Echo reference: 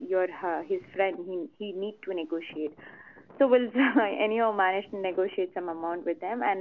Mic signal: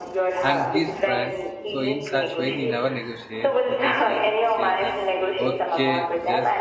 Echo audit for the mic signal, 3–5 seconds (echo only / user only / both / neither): both